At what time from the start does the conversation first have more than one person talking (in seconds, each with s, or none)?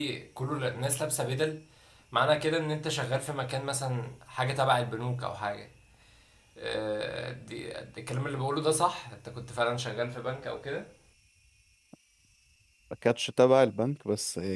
none